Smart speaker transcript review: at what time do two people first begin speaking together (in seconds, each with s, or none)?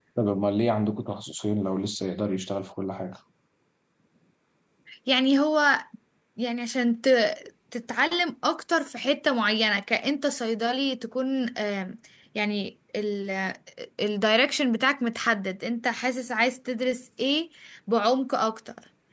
none